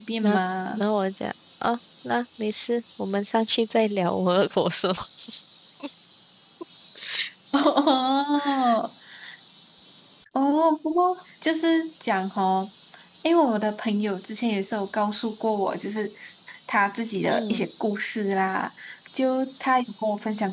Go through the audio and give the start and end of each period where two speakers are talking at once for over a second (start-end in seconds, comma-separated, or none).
none